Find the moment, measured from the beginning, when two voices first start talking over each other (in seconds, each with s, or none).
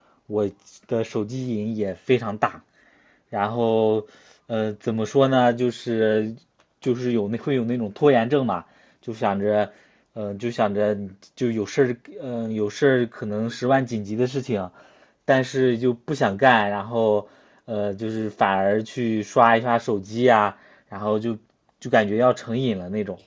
none